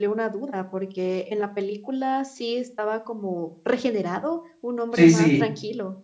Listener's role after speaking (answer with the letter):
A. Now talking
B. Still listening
A